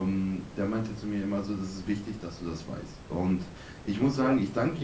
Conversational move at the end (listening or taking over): listening